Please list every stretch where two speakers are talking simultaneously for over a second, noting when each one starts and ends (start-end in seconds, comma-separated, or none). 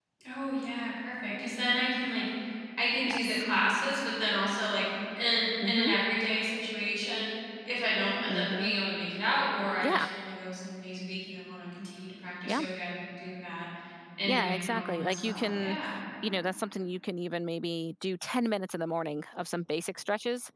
14.2-15.8